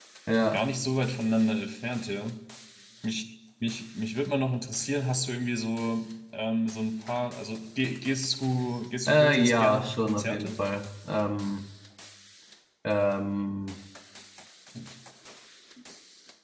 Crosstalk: present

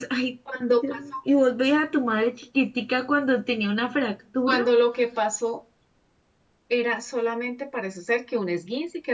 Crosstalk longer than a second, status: none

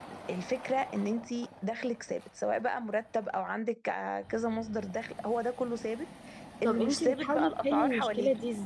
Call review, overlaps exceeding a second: present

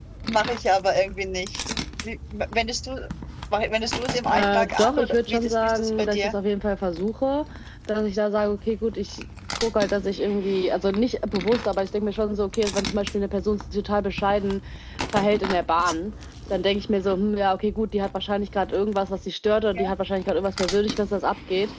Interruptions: present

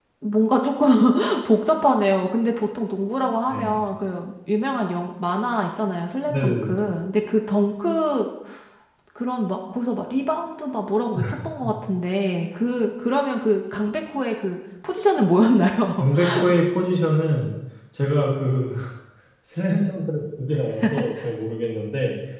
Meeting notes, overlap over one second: none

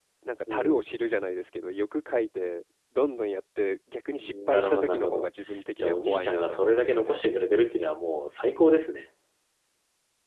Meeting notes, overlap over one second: present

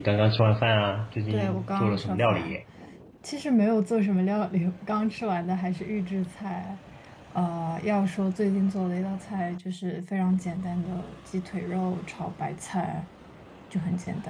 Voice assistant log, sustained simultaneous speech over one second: present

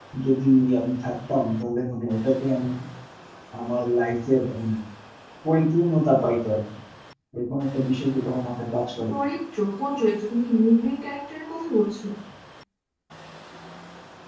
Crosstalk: none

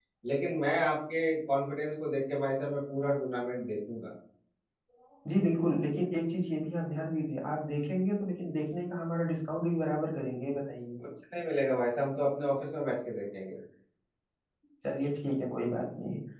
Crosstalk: none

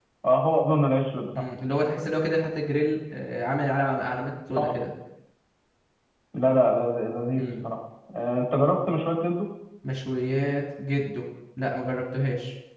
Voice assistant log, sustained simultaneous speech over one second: none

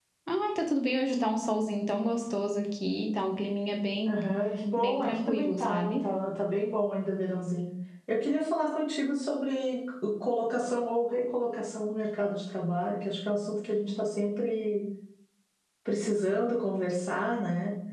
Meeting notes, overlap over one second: present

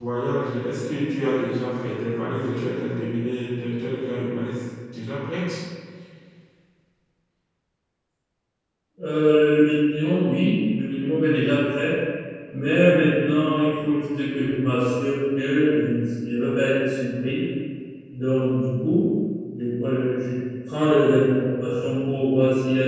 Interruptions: none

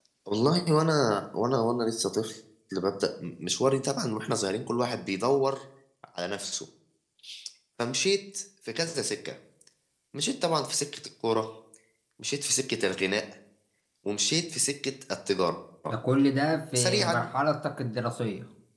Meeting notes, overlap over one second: none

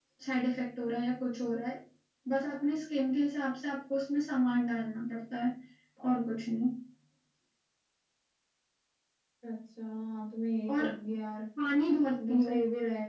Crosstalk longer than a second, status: none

